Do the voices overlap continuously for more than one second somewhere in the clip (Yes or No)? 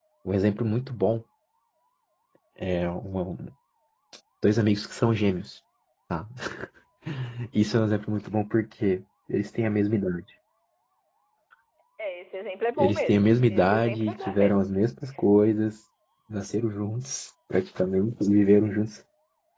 Yes